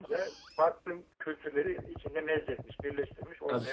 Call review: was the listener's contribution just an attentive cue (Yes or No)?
No